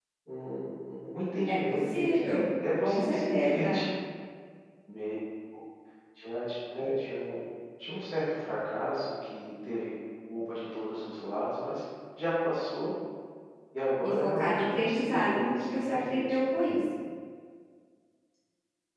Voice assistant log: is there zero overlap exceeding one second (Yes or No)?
No